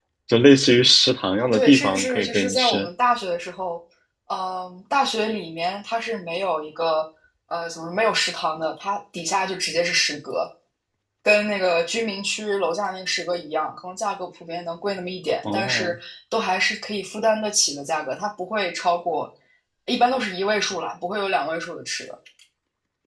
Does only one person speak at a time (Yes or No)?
No